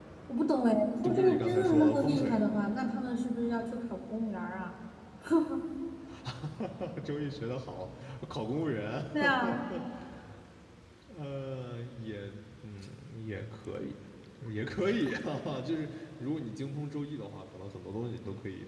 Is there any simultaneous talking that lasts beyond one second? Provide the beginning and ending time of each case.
1.0-2.4

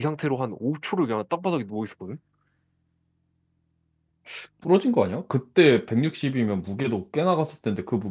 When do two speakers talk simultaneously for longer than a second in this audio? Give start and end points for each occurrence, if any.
none

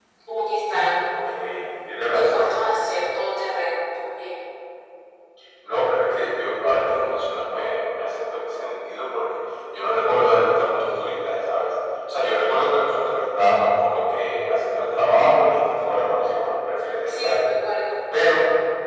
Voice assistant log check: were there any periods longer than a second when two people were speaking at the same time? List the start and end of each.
none

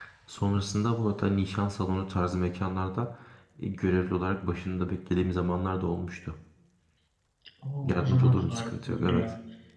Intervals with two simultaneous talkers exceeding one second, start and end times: 7.8-9.2

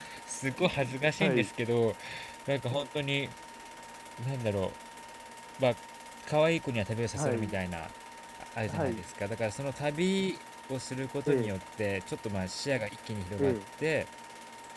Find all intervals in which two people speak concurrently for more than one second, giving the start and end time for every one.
none

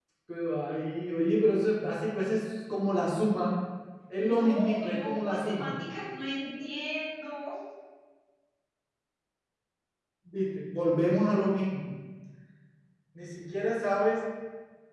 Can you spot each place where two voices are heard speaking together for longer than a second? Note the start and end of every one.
4.2-5.7

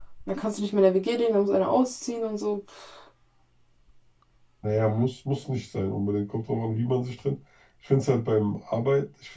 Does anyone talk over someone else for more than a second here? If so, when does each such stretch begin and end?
none

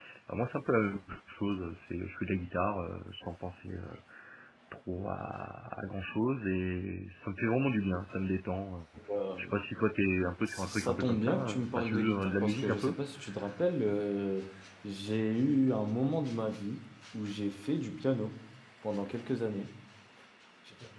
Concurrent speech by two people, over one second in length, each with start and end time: 10.4-13.0

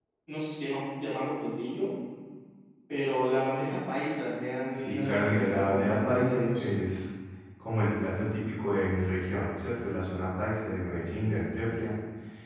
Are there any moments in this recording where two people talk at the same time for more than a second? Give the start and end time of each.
4.7-6.7

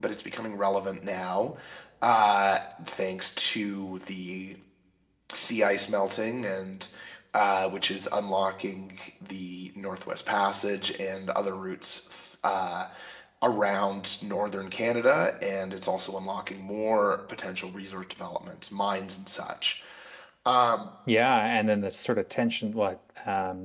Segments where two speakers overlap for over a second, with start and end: none

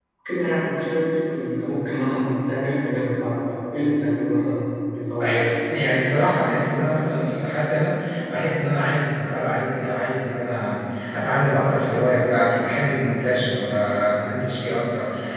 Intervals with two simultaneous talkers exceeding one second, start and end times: none

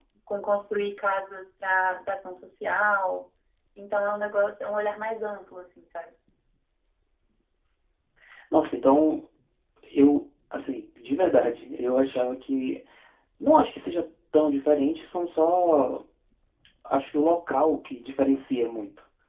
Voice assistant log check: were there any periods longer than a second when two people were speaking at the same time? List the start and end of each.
none

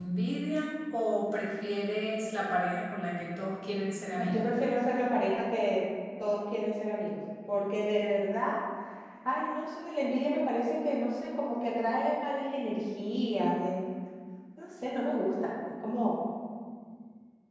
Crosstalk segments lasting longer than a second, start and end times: none

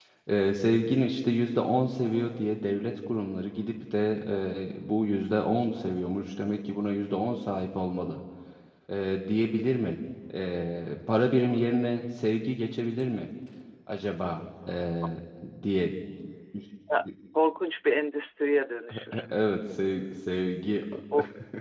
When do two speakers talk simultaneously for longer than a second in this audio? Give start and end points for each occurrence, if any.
none

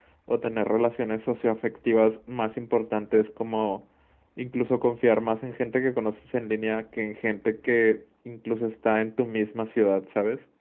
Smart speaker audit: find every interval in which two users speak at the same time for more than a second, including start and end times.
none

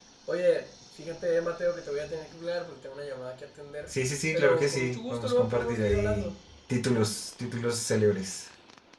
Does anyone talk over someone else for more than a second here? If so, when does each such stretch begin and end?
4.3-6.3

